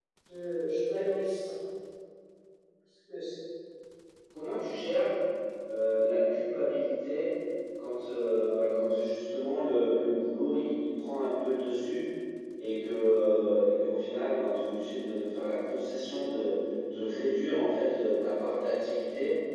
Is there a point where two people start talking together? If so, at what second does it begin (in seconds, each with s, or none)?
none